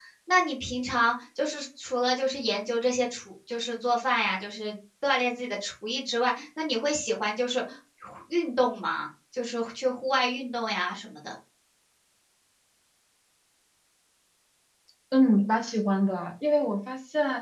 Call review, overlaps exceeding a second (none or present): none